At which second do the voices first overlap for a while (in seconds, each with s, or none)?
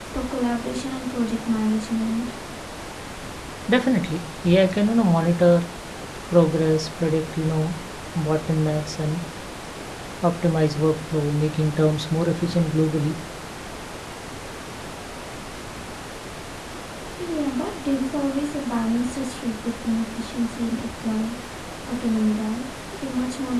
none